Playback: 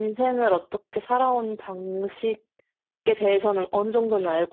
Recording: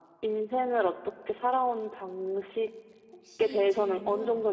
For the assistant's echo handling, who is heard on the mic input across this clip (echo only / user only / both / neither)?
both